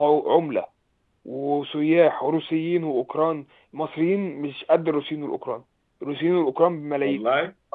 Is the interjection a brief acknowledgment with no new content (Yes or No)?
Yes